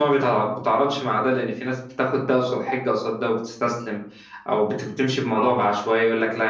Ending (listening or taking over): listening